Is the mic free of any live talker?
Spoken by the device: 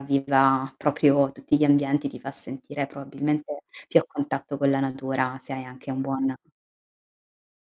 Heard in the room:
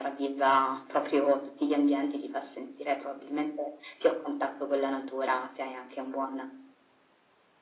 Yes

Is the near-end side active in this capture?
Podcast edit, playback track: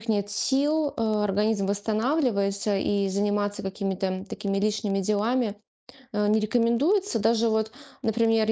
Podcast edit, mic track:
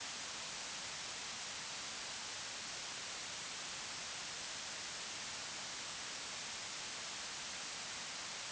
No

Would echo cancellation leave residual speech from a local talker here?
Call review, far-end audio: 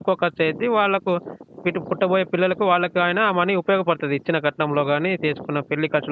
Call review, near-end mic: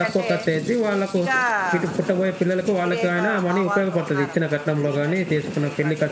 Yes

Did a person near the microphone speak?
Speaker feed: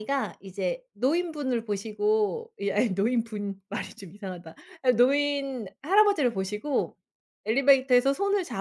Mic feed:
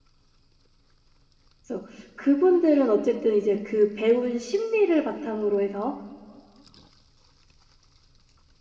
Yes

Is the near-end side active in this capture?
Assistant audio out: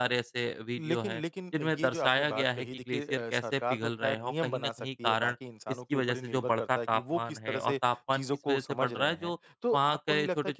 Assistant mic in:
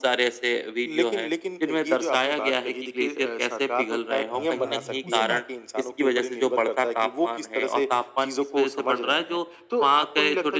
Yes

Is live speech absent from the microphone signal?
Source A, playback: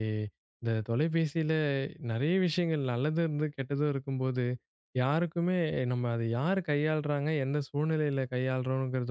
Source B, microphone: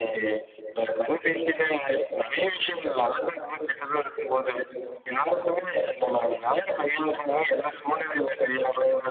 Yes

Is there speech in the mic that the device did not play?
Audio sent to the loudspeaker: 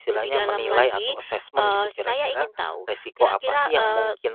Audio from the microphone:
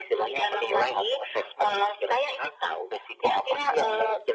No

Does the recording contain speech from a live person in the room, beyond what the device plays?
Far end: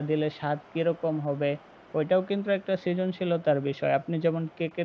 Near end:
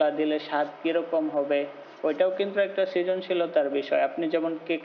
No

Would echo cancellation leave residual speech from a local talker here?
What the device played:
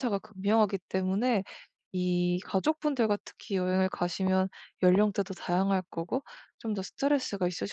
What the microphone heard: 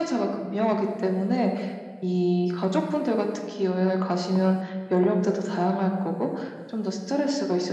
No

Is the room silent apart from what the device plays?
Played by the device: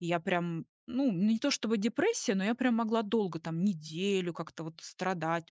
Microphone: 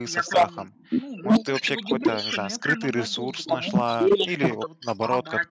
No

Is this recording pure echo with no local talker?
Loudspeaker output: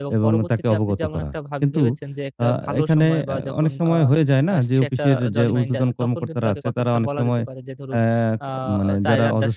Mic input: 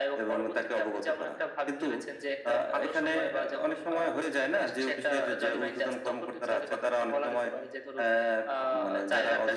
Yes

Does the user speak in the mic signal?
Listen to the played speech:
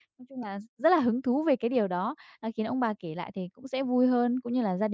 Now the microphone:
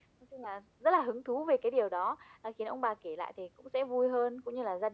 No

